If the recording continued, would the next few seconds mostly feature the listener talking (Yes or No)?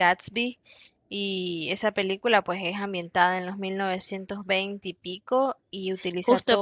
Yes